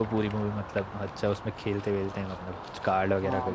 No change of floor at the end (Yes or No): No